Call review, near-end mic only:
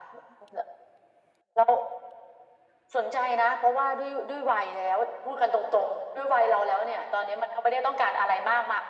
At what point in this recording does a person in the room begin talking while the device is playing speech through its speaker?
none

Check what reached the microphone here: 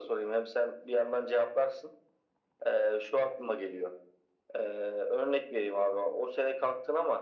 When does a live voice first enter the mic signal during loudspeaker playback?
none

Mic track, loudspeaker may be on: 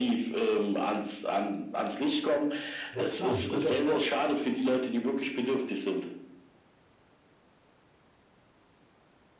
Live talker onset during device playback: 2.9 s

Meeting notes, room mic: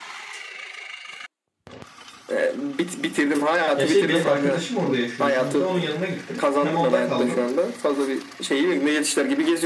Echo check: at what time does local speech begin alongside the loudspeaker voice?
3.8 s

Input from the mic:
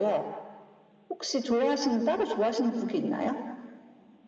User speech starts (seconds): none

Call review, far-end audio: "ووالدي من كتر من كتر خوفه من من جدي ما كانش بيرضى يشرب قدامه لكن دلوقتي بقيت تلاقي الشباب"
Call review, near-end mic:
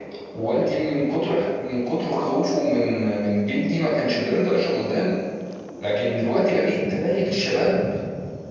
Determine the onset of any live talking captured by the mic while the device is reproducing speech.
none

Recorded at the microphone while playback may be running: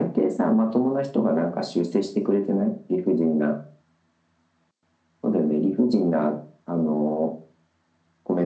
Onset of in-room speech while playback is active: none

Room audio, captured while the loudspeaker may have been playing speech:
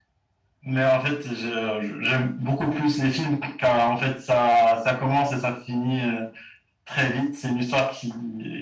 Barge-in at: none

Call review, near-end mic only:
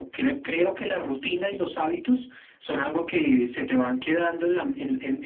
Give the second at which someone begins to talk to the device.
none

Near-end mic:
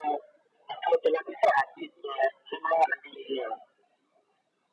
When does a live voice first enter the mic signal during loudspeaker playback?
none

